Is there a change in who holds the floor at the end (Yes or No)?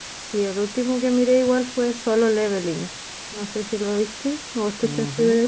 Yes